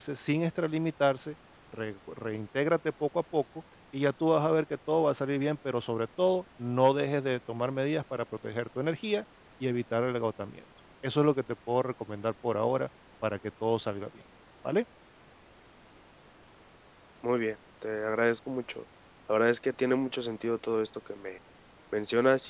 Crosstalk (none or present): none